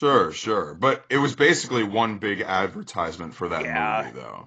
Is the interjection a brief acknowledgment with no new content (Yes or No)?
No